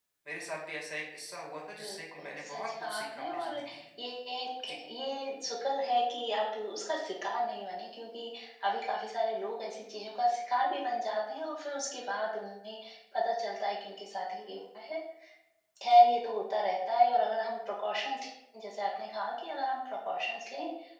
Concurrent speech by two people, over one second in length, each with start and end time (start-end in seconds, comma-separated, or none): 1.8-3.5